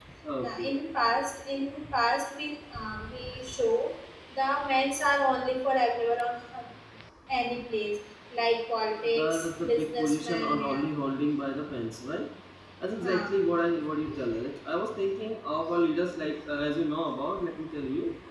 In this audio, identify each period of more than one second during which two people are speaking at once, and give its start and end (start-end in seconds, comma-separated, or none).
9.2-10.9